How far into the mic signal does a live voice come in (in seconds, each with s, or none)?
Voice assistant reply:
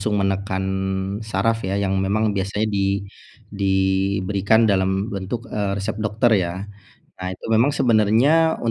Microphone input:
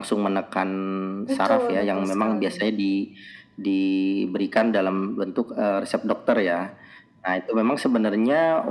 1.3 s